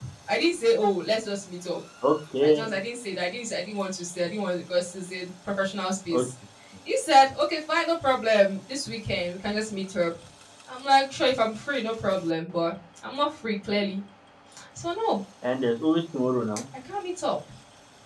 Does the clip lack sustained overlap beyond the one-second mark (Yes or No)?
Yes